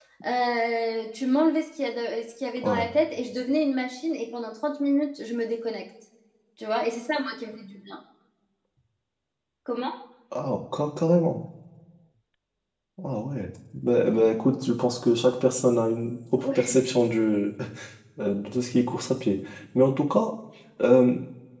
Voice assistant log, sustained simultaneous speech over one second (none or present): none